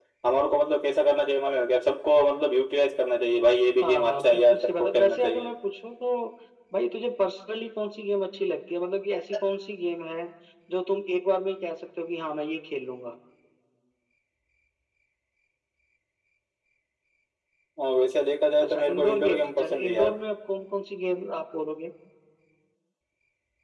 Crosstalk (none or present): present